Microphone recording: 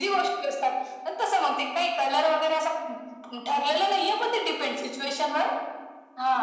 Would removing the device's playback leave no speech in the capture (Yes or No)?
Yes